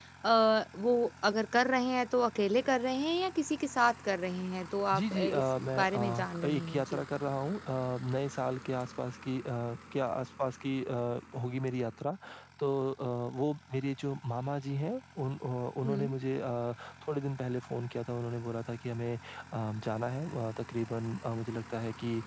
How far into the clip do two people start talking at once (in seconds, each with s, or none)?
4.9 s